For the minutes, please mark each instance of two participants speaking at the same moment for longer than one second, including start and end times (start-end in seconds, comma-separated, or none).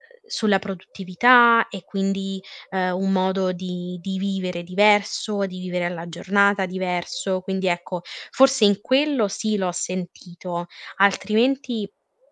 none